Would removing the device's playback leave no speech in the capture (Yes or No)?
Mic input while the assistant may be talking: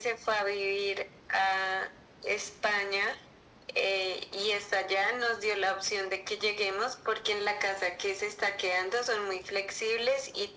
Yes